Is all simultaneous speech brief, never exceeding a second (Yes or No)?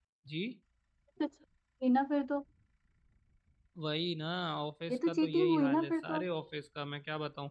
No